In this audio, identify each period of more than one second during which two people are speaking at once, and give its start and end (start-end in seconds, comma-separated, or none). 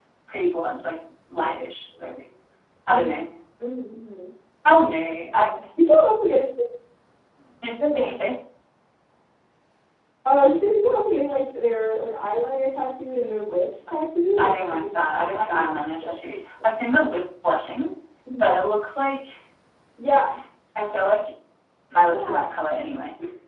14.4-16.1